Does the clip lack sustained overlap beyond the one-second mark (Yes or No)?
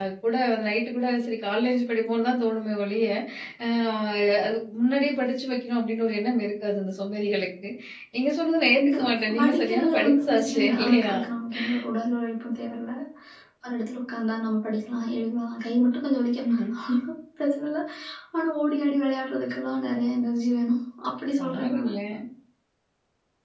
No